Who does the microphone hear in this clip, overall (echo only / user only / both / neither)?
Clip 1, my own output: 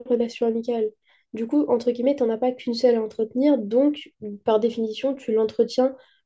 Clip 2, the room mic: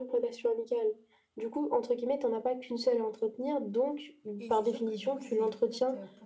both